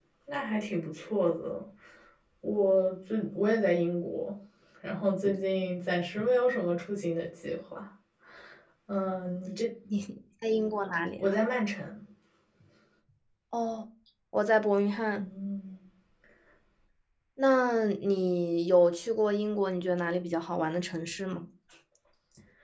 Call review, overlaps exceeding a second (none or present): none